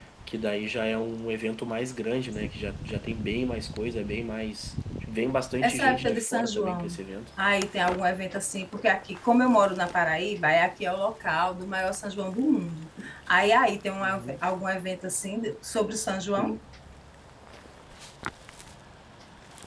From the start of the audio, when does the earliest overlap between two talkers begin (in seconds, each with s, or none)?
5.6 s